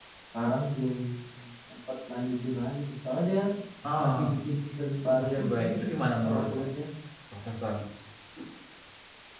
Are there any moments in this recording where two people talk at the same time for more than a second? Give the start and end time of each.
none

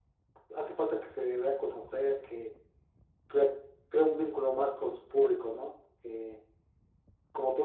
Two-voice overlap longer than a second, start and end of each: none

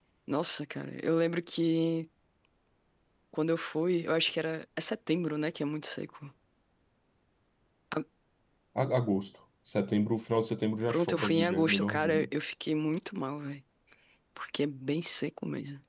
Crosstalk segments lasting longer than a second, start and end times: 10.9-12.3

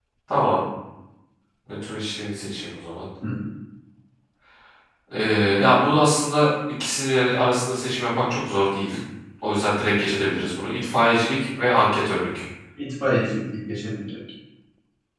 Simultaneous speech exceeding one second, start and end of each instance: none

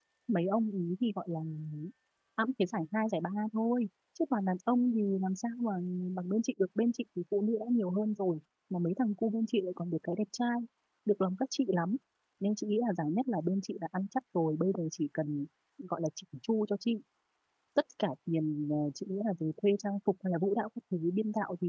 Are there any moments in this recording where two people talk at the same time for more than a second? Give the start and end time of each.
none

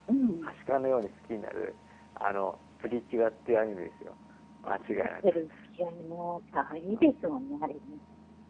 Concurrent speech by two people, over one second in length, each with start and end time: none

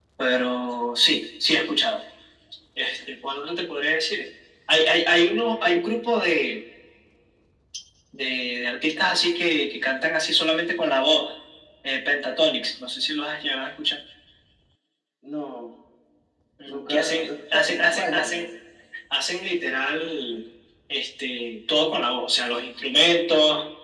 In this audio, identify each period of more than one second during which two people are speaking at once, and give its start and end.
16.6-18.5

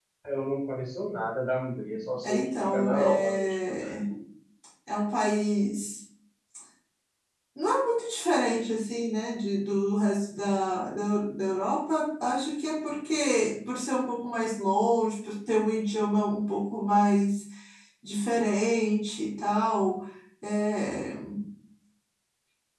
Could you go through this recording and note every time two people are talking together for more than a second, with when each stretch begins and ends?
2.2-3.5

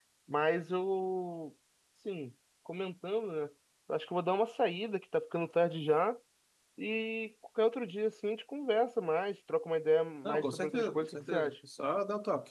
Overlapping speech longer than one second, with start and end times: 10.2-11.5

